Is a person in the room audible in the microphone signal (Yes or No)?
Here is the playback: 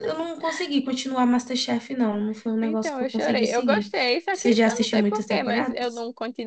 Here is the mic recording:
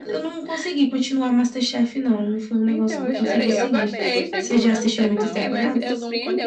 Yes